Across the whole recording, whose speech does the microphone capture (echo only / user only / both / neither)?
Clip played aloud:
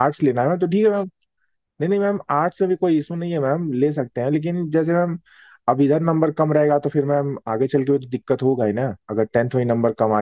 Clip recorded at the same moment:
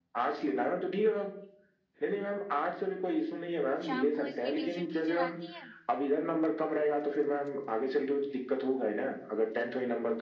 both